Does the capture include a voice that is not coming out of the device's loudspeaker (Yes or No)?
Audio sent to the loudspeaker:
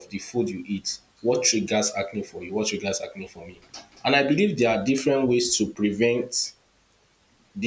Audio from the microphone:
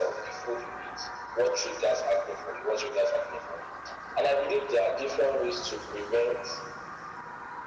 No